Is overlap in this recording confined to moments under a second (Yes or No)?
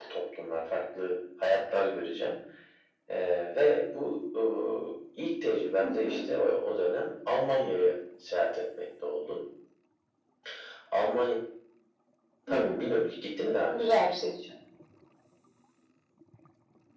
Yes